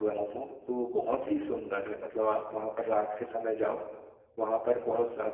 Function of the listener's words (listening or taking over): listening